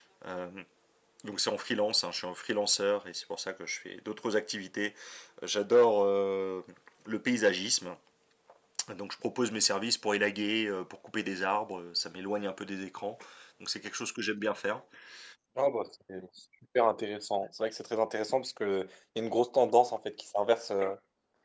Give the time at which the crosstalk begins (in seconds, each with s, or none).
none